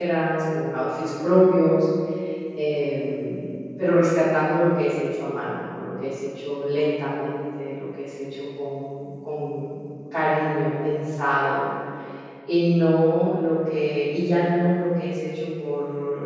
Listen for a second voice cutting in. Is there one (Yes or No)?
No